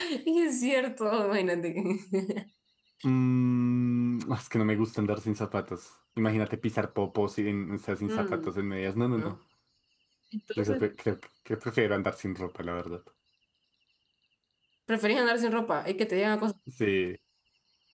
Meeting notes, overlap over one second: none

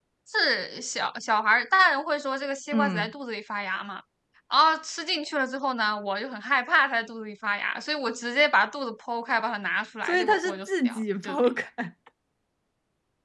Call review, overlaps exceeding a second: present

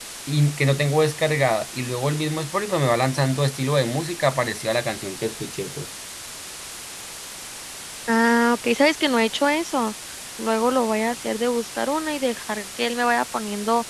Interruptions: none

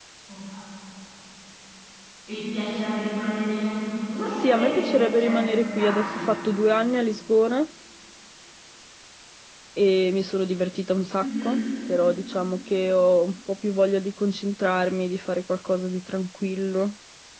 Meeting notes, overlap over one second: present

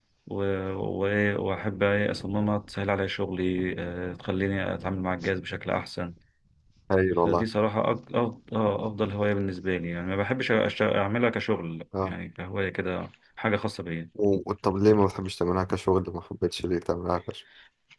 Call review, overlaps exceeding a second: none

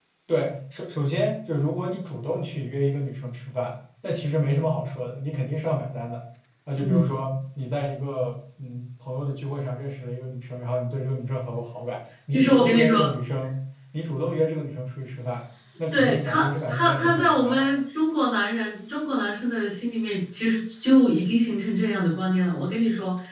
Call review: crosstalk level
present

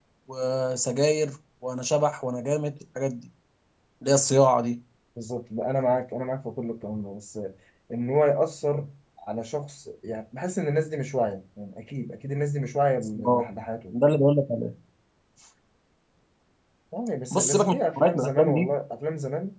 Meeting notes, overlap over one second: present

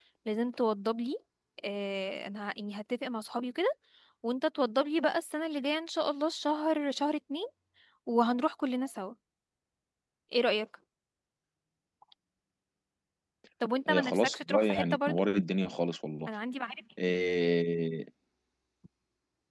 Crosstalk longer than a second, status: present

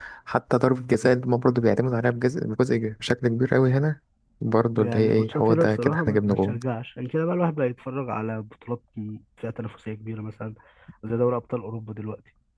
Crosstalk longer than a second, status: present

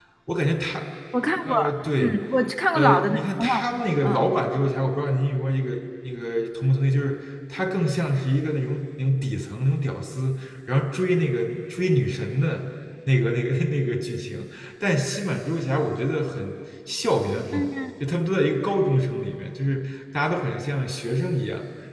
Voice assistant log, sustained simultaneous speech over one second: present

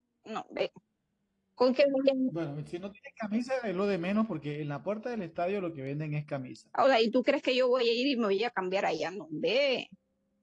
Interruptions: none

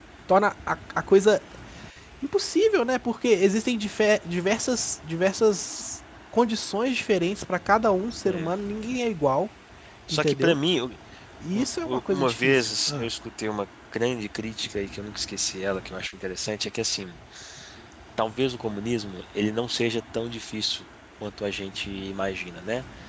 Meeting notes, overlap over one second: present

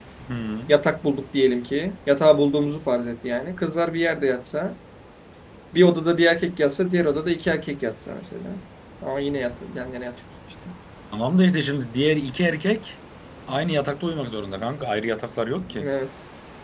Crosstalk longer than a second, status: none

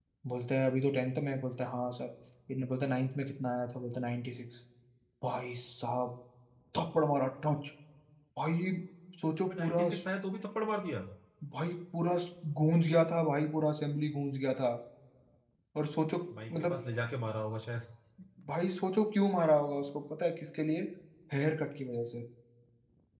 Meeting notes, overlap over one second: none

